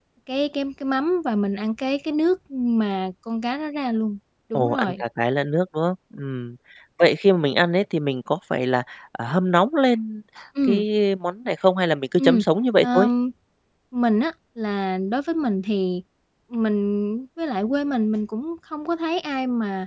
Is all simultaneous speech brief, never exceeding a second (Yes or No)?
Yes